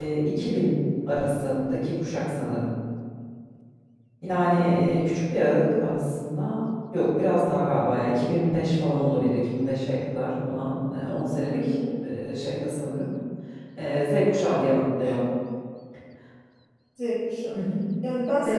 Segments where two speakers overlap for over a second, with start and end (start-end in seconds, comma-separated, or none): none